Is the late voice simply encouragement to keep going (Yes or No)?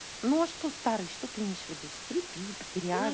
No